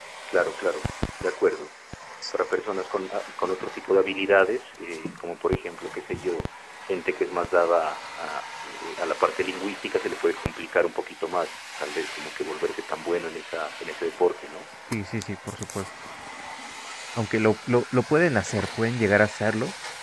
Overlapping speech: No

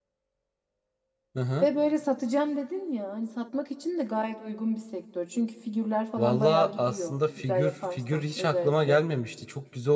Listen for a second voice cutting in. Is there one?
Yes, from 6.2 s

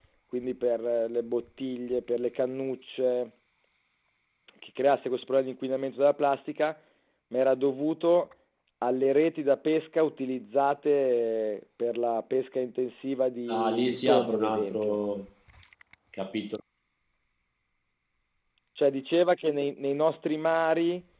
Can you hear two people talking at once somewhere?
Yes, from 13.5 s

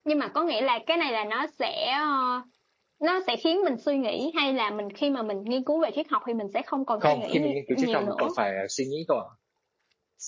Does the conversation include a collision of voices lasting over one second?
Yes, from 7.0 s

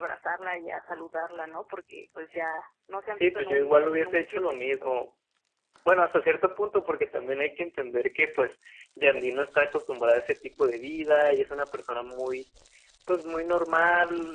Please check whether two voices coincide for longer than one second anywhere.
Yes, from 3.2 s

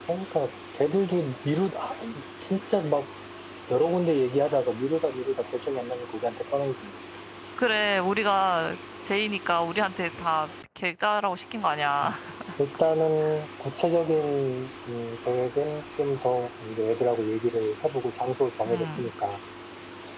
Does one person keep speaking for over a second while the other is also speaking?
No

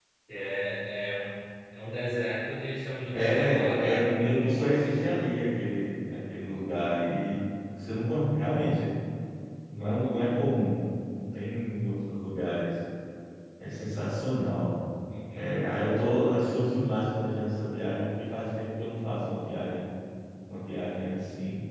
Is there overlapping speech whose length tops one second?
Yes, from 3.1 s

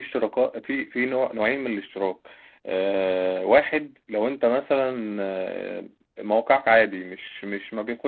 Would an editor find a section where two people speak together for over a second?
No

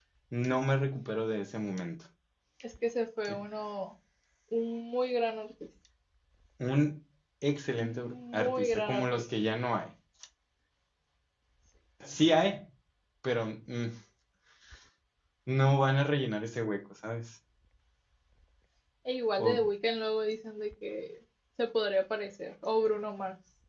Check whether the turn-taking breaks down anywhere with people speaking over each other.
Yes, from 7.7 s

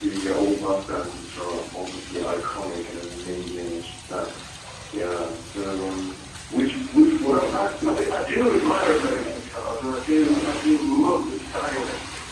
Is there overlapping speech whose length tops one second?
Yes, from 7.3 s

